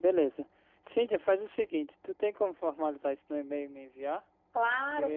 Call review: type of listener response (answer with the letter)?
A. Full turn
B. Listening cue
A